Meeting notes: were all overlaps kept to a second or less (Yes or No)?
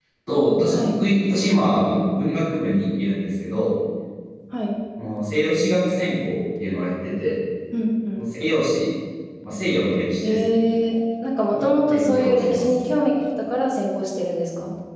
No